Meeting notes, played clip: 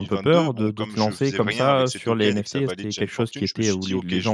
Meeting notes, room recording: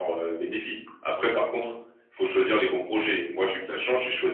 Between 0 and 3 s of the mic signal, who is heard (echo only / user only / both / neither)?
user only